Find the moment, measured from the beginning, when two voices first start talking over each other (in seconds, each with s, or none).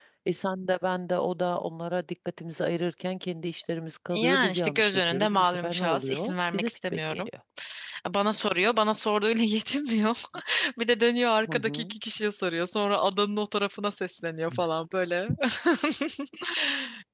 4.2 s